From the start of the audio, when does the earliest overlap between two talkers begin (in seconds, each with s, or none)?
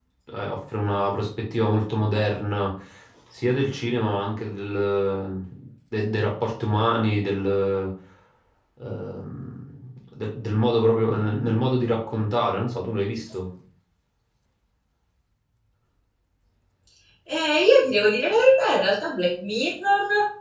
none